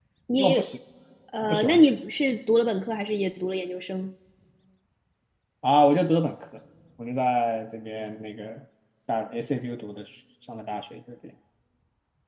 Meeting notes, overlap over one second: none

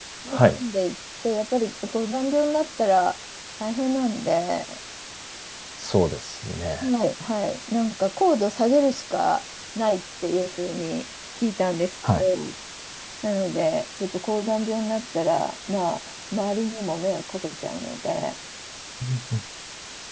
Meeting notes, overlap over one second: none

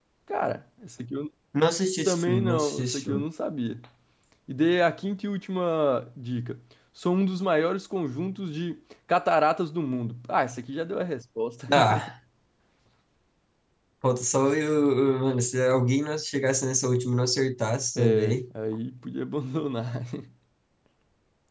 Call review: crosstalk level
present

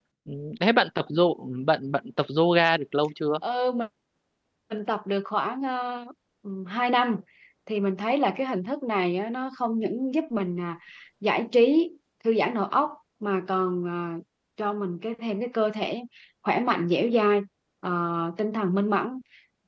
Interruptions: none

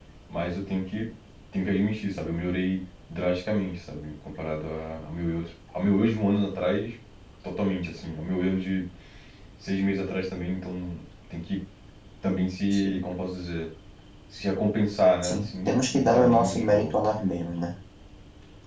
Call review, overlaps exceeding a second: present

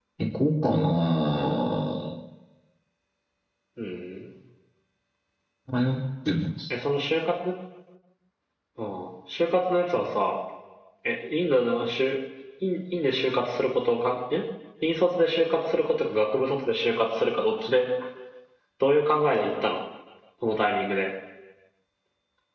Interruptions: none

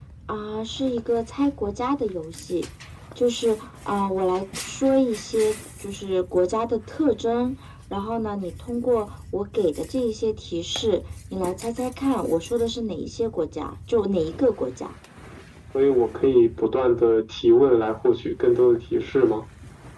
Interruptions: none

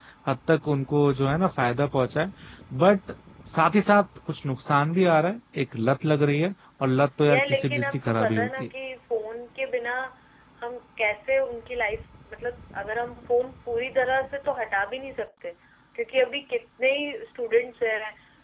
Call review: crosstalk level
present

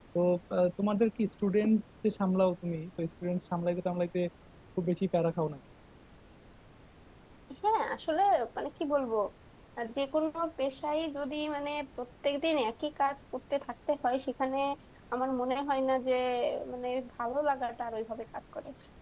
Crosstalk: none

